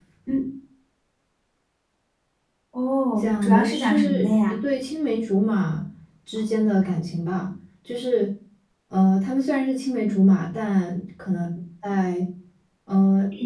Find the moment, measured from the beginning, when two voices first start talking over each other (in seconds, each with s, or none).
3.2 s